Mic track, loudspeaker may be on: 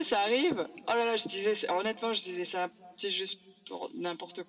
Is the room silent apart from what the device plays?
Yes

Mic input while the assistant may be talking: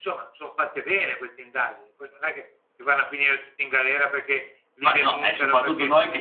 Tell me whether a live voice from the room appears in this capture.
Yes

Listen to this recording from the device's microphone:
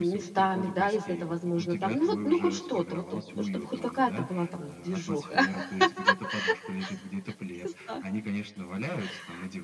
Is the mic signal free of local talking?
No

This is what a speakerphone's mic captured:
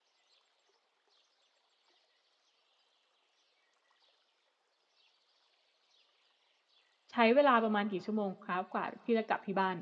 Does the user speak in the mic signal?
Yes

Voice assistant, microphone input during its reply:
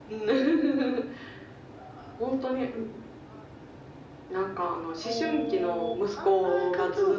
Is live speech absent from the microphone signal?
Yes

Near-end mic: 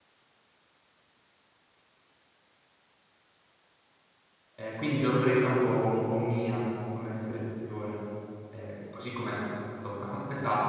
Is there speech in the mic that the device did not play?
Yes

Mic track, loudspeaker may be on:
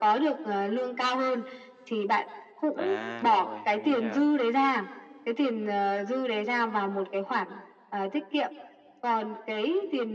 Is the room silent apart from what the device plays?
No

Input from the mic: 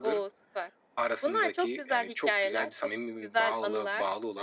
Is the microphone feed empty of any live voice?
Yes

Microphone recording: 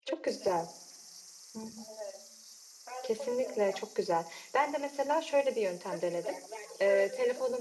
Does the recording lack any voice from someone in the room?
No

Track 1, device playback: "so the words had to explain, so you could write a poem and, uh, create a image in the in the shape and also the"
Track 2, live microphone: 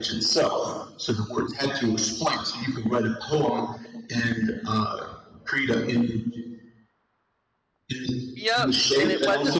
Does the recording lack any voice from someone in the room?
No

